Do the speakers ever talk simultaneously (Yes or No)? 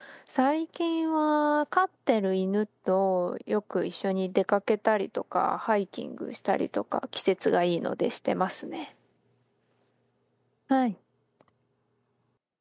No